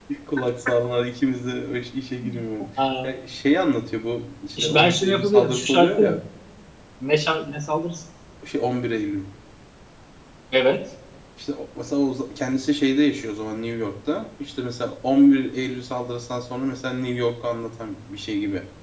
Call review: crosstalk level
present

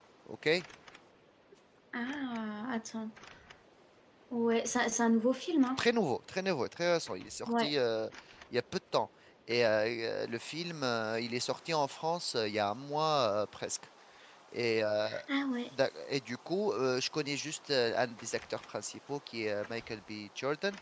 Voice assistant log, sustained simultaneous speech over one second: none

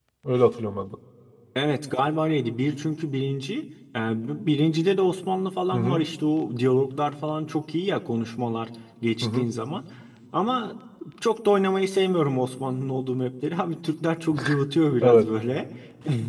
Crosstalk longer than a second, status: none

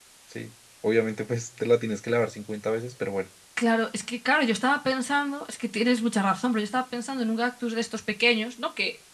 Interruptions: none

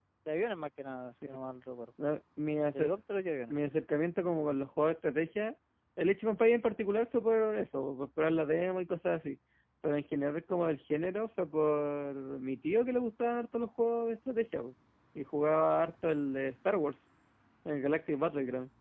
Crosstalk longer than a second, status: none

